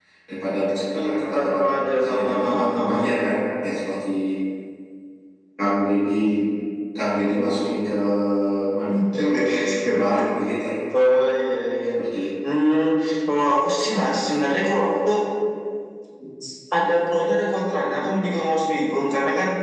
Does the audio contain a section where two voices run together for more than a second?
Yes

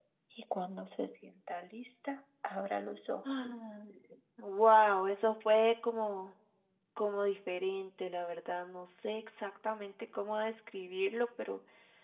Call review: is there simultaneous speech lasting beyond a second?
No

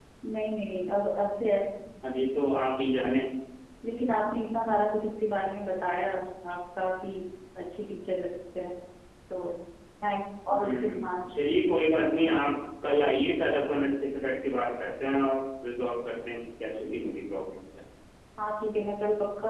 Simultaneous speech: Yes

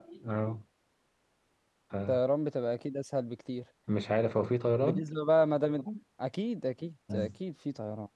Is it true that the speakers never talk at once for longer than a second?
Yes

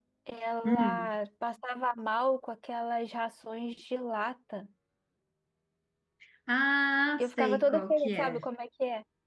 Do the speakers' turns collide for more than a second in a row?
Yes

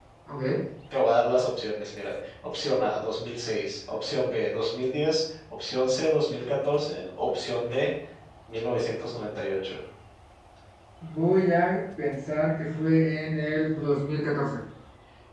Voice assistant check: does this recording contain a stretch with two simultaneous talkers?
No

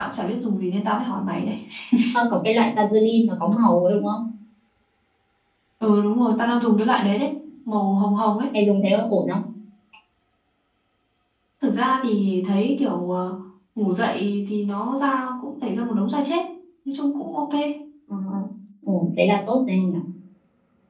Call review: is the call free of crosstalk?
Yes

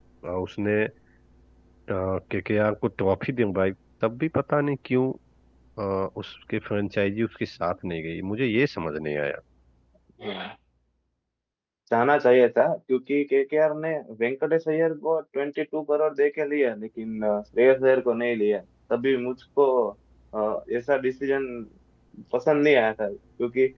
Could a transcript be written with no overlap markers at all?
Yes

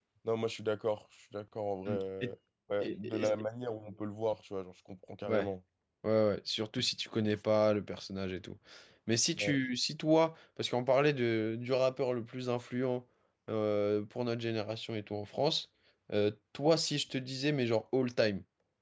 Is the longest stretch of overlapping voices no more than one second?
Yes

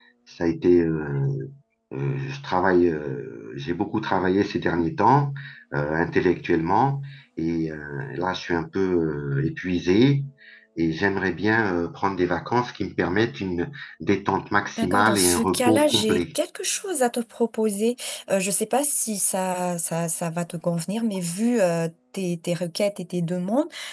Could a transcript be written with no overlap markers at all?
No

